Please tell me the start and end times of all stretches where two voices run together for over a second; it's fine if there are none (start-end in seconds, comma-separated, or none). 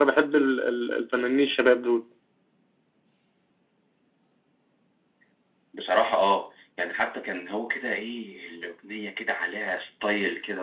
none